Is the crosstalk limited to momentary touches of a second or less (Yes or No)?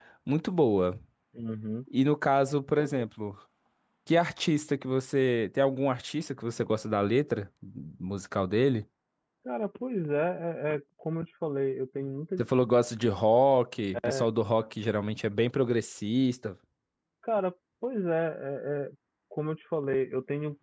Yes